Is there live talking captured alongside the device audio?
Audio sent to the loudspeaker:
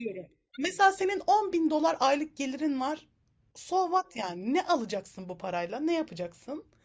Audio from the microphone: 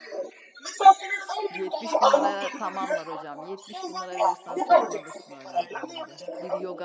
Yes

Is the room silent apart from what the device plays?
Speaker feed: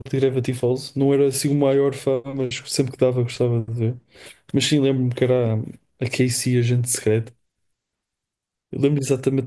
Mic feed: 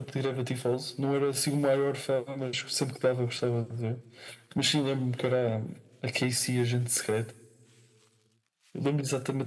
Yes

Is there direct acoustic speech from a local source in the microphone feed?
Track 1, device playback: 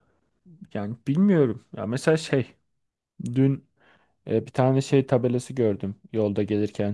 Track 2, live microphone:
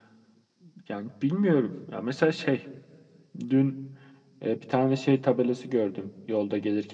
No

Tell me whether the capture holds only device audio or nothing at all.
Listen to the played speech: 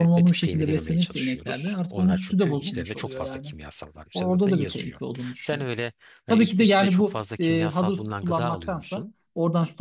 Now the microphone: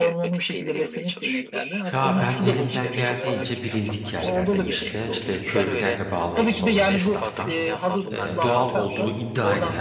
No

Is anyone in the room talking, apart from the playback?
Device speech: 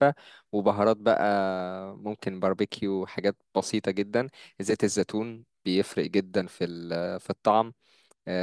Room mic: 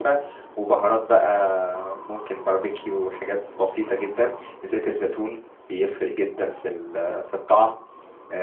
No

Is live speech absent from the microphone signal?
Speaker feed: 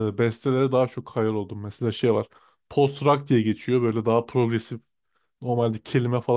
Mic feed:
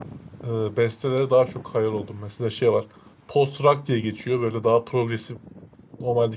Yes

